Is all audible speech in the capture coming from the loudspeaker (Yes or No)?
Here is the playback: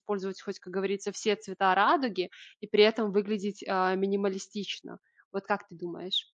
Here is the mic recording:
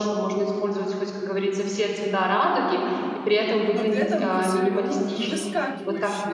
No